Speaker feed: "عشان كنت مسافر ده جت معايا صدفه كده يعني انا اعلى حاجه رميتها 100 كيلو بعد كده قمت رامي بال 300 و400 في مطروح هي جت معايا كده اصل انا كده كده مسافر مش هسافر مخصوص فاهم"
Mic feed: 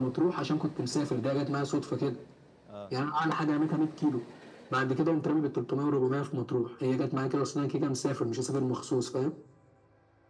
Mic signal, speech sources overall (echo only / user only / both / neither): both